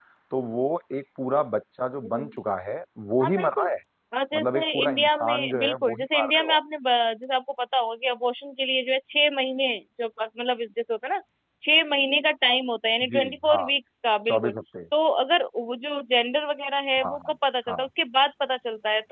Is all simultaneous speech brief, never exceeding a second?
No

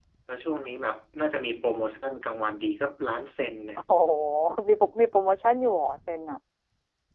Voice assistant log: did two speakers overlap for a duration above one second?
No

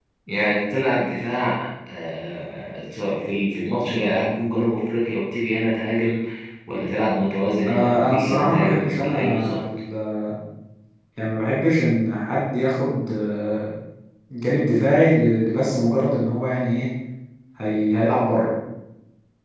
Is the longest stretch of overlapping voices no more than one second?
No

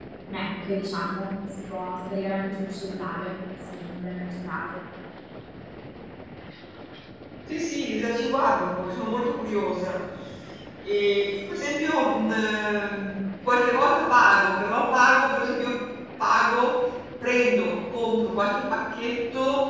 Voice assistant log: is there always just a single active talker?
Yes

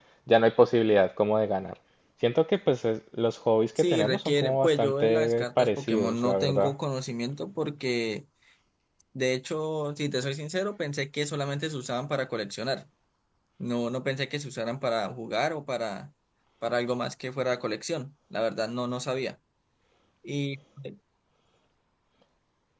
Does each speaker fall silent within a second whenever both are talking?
No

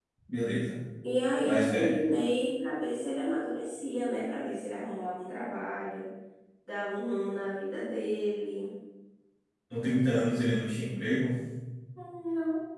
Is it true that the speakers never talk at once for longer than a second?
Yes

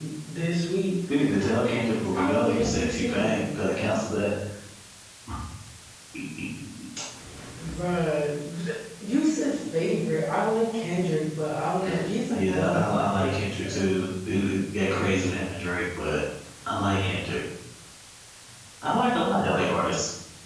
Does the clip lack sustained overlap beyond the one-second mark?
No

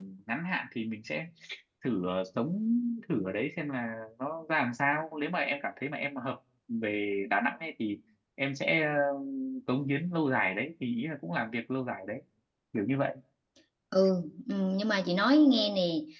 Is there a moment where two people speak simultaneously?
No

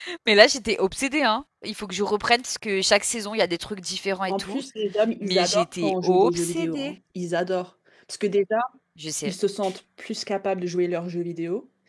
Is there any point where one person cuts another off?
Yes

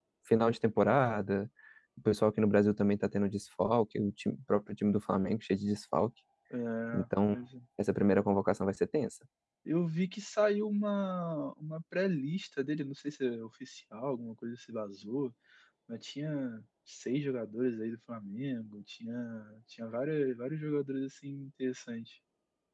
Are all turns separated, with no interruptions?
Yes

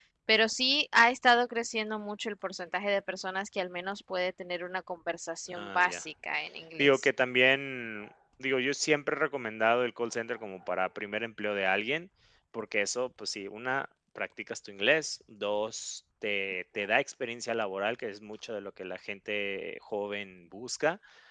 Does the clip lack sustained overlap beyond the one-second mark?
Yes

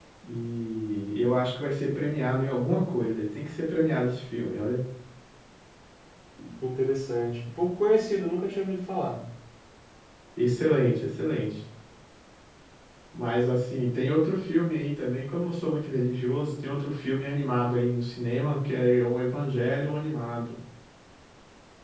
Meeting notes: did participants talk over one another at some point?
No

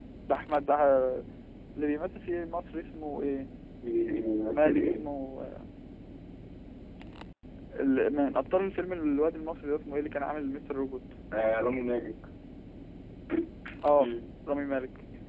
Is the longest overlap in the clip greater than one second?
No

